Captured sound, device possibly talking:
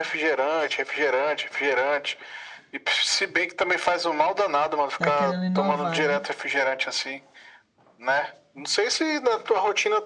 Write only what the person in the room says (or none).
Tá querendo inovar, né?